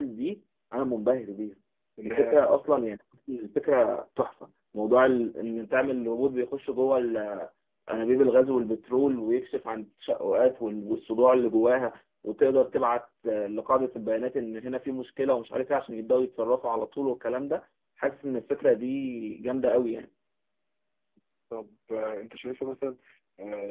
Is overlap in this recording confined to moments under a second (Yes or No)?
Yes